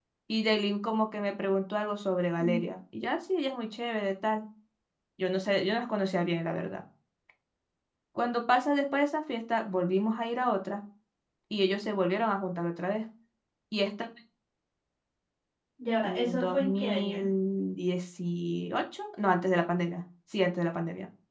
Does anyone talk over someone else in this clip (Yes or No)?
Yes